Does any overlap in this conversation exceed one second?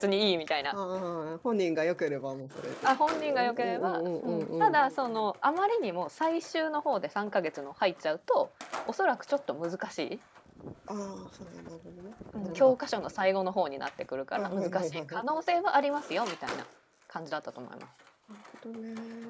Yes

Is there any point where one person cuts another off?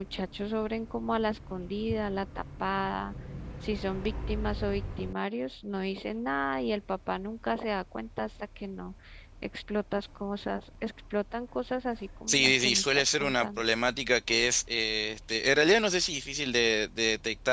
Yes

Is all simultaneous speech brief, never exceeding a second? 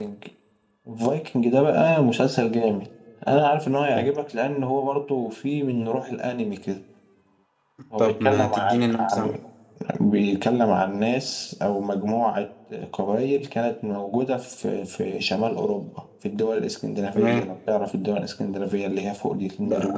No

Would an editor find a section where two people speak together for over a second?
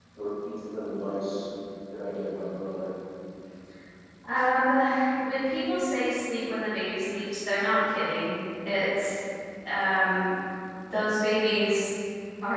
No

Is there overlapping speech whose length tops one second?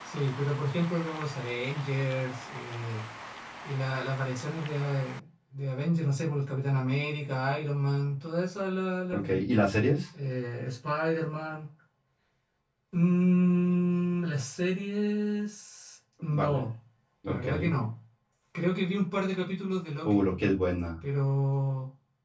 No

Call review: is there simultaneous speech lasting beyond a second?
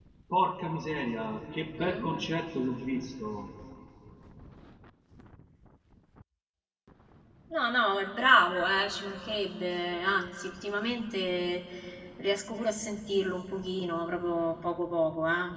No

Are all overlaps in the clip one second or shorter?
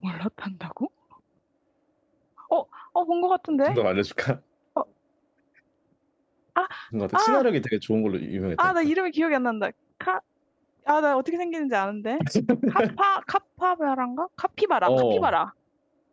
Yes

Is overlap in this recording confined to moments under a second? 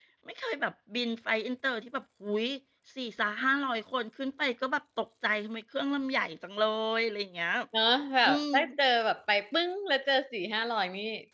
Yes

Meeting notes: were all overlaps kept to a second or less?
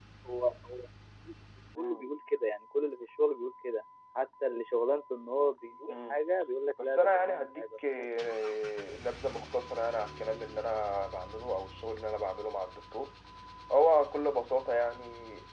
No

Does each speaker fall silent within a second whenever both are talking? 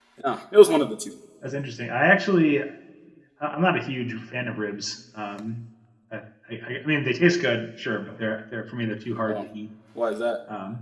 Yes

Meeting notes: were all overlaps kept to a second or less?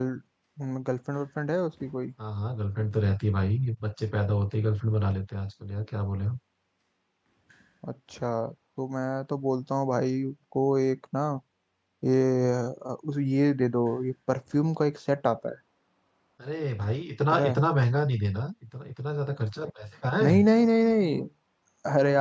Yes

